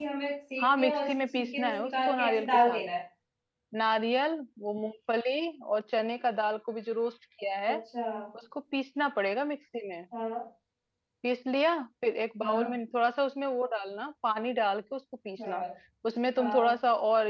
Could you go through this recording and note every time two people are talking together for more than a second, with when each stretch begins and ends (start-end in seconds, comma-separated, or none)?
0.6-2.8